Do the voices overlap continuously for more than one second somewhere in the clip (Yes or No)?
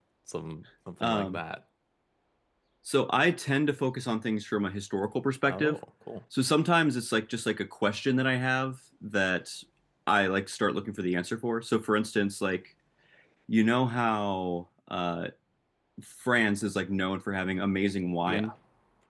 No